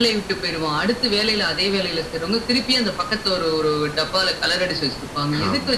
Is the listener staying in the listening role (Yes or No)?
Yes